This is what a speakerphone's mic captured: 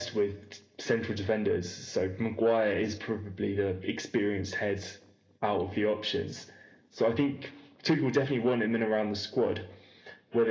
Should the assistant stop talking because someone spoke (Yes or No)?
No